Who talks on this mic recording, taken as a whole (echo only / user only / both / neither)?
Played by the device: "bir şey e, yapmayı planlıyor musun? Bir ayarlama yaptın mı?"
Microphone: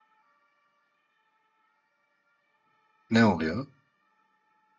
user only